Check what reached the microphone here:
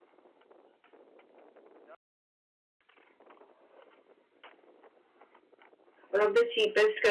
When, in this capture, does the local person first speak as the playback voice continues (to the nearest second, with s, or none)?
6 s